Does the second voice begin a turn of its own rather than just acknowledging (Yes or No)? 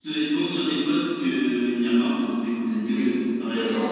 Yes